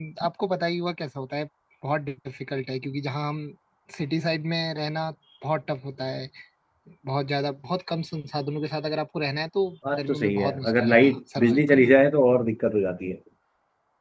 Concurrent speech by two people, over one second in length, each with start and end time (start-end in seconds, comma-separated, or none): 10.0-11.9